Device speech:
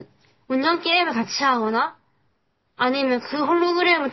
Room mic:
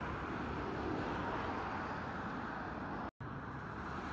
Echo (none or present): none